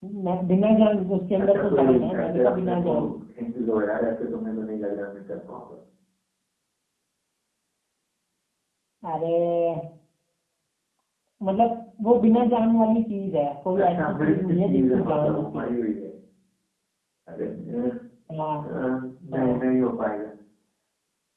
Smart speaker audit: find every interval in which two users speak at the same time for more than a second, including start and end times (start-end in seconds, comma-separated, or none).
1.4-2.9, 13.8-15.7